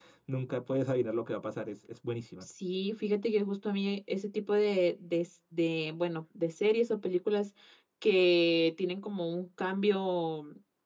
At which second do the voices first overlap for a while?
none

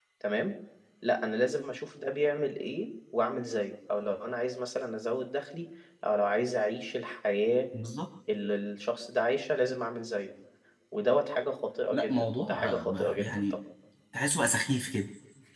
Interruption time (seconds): 11.9 s

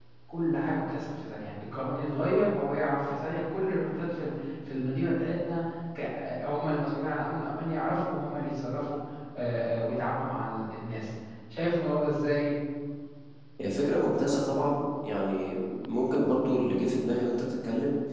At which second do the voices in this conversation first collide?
none

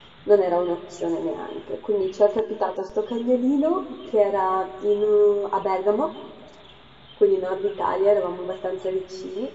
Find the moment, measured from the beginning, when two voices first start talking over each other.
none

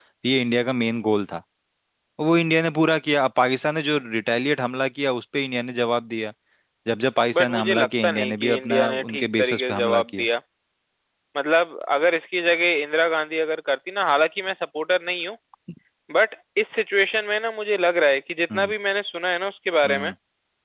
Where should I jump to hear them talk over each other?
7.3 s

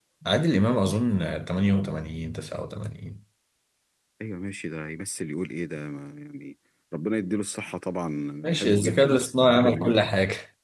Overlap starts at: 8.4 s

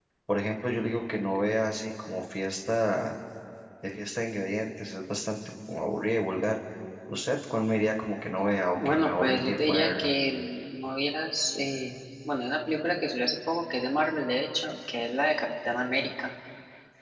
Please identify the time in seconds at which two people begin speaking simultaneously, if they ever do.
8.8 s

